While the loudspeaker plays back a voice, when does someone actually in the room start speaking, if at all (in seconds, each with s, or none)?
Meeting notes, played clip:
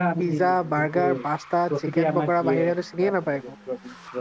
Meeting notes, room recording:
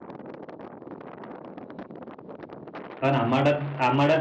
3.0 s